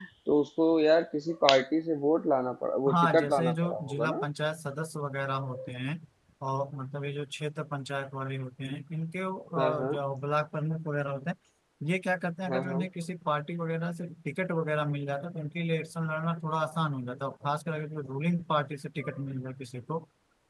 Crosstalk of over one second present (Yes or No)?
Yes